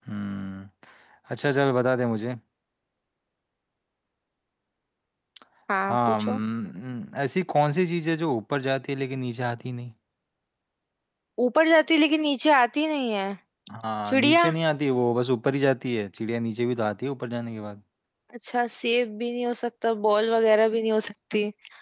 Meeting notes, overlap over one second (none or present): none